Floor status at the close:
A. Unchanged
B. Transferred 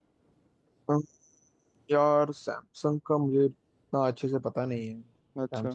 B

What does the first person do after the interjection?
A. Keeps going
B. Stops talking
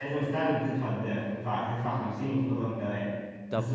A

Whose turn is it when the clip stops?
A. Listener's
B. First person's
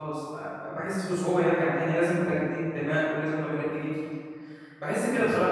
B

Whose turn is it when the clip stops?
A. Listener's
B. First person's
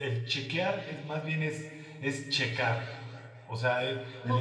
B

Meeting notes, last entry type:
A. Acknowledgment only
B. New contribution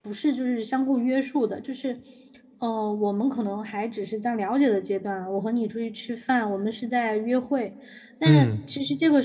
A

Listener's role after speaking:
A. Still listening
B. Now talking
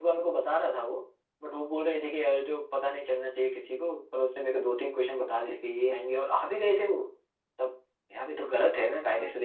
B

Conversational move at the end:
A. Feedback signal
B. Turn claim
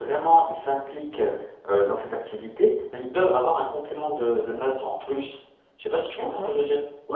B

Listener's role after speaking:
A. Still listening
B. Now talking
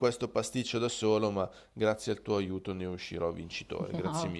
B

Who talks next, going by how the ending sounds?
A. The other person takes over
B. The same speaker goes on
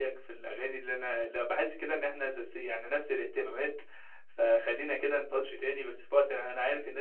B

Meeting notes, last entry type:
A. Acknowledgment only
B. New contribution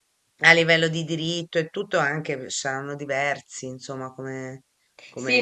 B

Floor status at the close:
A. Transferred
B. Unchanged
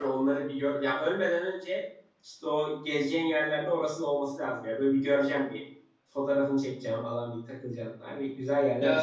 A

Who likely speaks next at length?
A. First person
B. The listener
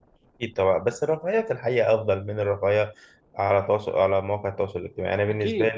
B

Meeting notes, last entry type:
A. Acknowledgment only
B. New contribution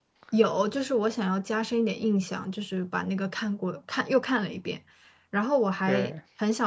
A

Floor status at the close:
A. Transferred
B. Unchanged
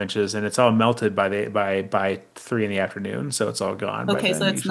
A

